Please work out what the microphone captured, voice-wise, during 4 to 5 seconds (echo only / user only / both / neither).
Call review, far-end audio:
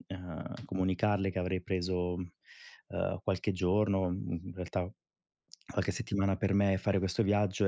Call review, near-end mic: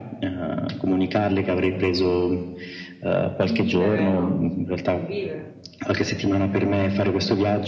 both